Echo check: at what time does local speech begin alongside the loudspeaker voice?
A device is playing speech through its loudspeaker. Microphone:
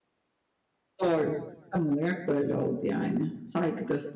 1.0 s

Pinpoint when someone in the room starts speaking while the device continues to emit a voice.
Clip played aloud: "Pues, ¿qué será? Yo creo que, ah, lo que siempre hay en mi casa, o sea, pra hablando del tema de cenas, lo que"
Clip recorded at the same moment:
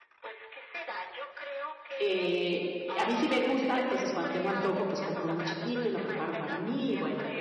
2.0 s

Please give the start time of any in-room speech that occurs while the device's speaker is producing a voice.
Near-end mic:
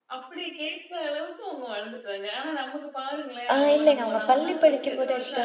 3.5 s

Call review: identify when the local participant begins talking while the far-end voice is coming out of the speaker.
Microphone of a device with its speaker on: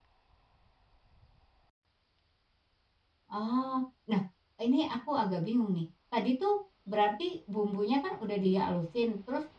3.3 s

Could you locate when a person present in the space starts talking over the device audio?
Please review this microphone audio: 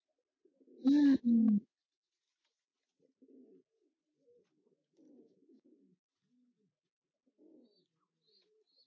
0.8 s

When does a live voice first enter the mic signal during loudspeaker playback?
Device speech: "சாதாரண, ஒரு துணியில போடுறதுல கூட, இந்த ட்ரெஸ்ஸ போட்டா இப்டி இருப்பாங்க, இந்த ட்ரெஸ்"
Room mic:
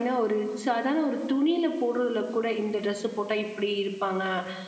none

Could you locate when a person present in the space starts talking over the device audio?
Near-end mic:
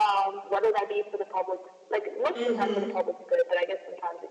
2.3 s

